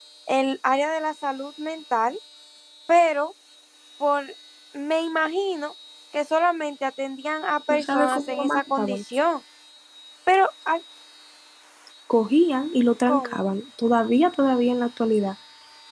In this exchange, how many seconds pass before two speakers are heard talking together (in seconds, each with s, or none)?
7.7 s